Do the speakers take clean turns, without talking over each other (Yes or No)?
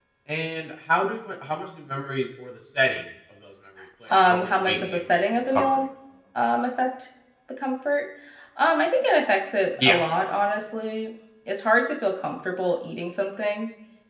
No